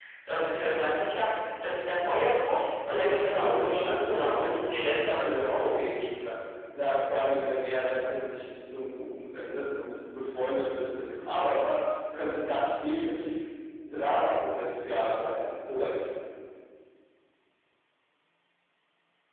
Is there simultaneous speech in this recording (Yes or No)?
Yes